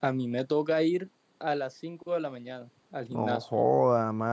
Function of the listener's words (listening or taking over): taking over